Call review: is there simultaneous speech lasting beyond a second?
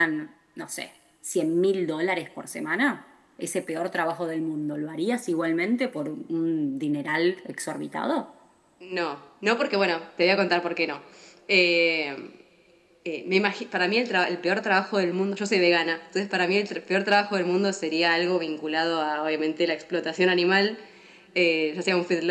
No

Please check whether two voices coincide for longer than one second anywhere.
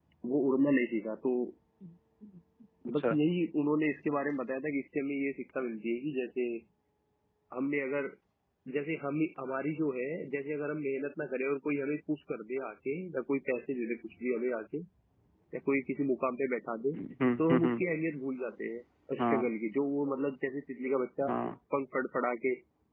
No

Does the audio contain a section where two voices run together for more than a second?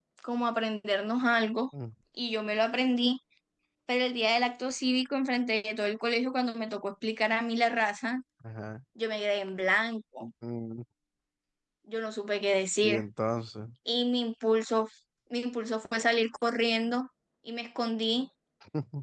No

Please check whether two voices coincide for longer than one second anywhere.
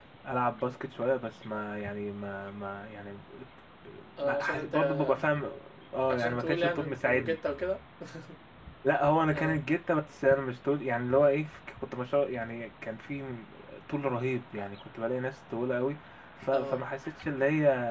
Yes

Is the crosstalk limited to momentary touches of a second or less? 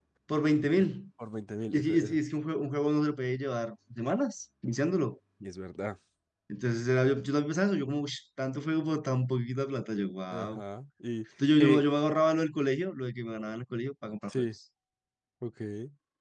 Yes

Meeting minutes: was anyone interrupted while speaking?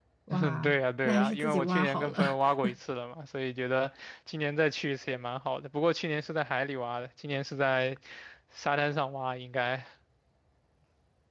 Yes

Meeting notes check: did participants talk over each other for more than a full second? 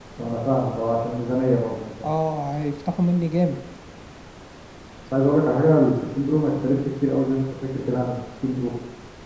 No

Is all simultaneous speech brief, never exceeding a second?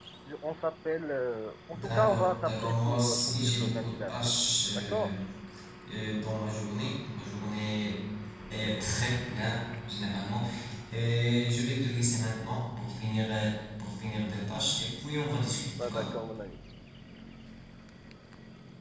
No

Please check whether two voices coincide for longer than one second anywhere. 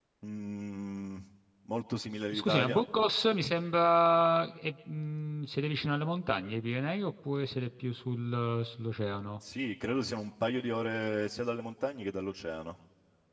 No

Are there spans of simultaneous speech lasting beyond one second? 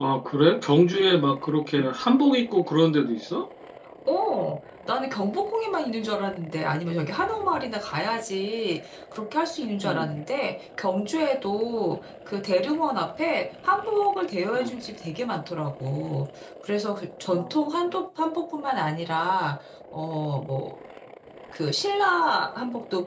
No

